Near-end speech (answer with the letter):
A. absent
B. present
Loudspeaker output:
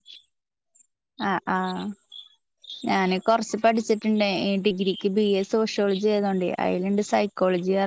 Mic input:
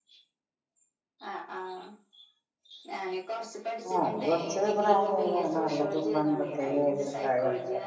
B